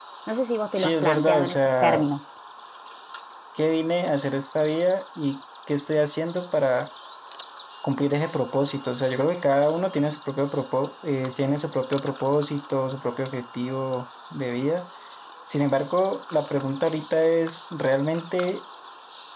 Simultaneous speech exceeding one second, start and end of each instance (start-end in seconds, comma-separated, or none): 0.8-2.1